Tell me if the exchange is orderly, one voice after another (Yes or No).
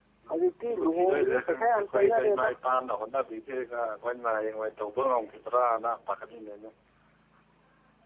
No